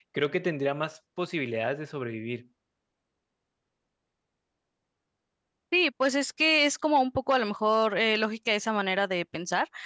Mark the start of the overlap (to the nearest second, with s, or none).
none